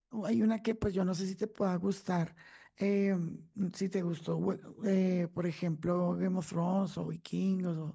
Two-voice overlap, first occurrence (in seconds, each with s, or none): none